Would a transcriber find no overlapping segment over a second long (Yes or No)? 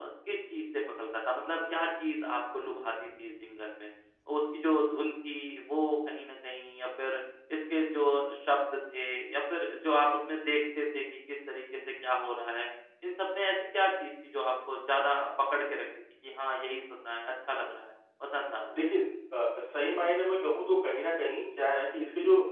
Yes